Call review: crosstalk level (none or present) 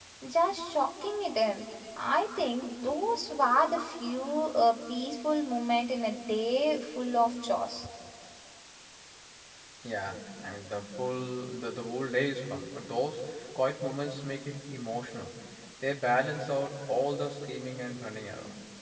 none